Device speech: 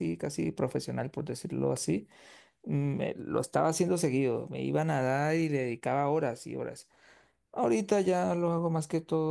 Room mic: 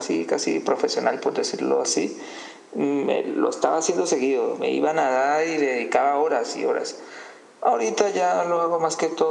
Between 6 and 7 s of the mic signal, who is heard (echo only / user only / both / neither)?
echo only